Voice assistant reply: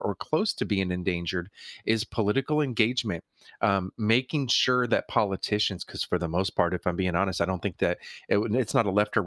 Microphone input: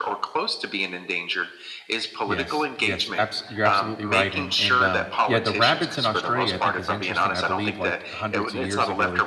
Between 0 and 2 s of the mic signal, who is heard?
echo only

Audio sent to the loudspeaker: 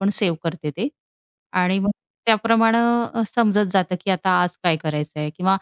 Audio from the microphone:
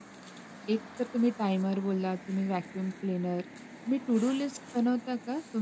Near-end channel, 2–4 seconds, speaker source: user only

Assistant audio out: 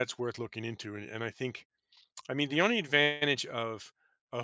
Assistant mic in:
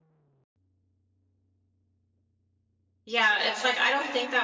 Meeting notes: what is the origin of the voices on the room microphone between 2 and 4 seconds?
user only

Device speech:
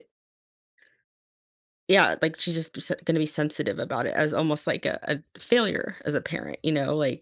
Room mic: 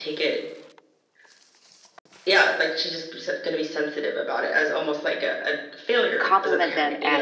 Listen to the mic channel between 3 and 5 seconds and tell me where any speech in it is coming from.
echo only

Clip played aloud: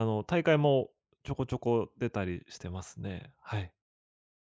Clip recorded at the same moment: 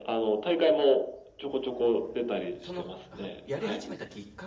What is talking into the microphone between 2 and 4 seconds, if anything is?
both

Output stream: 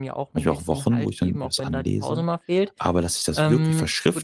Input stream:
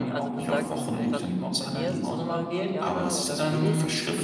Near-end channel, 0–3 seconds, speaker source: both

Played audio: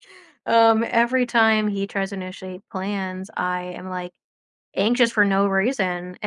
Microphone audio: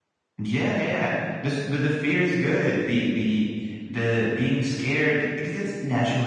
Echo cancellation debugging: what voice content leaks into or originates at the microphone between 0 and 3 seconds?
user only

